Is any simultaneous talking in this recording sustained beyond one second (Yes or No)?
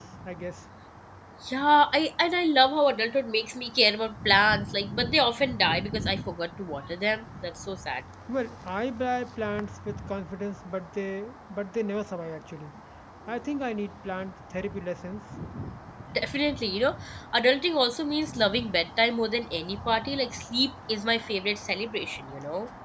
No